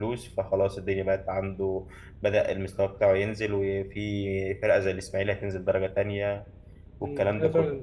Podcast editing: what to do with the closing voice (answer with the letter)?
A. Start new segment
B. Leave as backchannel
A